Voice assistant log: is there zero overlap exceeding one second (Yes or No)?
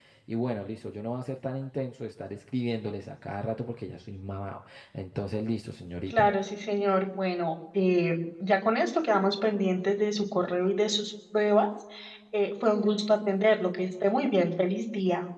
Yes